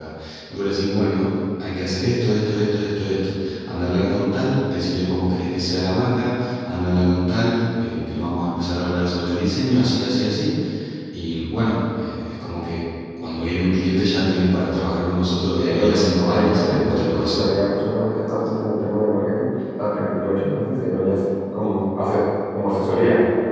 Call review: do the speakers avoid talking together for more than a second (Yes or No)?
No